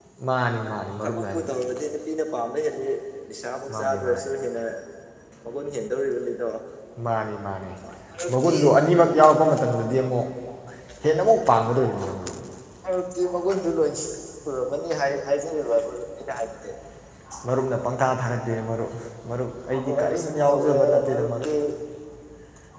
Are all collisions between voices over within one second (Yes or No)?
No